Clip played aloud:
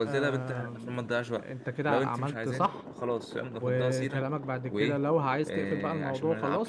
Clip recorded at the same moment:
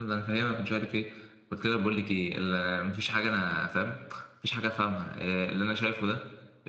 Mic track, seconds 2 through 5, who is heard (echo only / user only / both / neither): user only